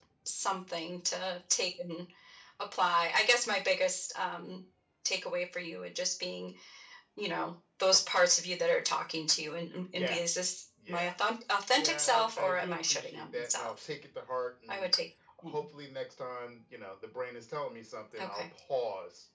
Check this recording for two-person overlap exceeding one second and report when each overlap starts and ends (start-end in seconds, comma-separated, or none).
11.7-13.7